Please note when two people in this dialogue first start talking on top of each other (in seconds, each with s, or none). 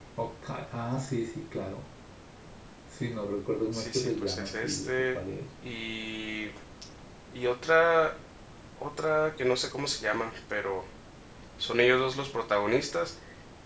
3.7 s